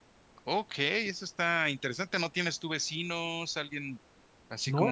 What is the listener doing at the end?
taking over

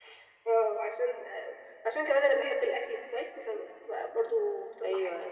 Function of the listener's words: taking over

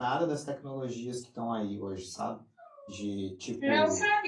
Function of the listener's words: taking over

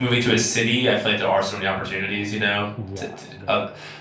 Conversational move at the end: listening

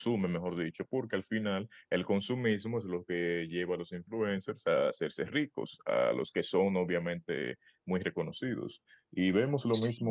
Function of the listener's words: listening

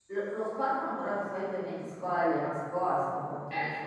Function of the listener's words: taking over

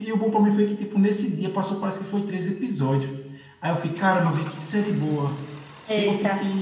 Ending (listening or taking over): taking over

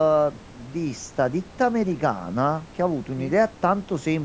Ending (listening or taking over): listening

